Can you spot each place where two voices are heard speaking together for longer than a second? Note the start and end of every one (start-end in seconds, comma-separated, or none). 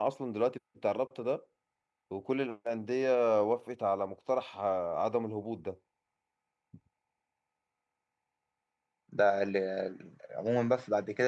none